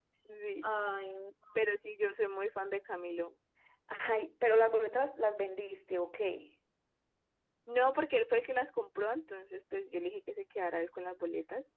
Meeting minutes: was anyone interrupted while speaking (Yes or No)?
No